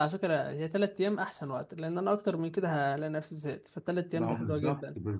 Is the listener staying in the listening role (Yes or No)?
No